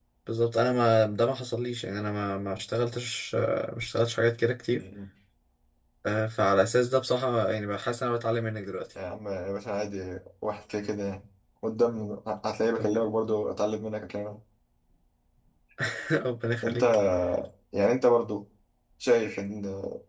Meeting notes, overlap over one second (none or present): none